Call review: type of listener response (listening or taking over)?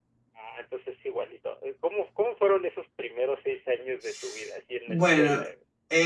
taking over